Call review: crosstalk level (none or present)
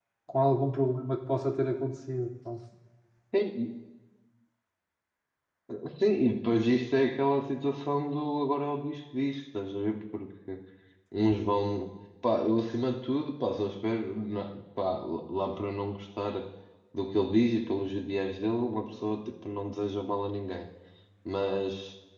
none